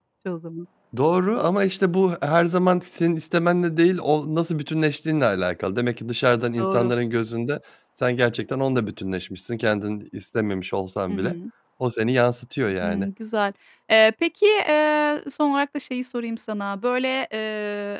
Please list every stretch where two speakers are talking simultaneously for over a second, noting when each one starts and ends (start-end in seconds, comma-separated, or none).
none